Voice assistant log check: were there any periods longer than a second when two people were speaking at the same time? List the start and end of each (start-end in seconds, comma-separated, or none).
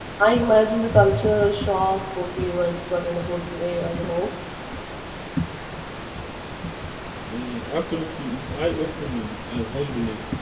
none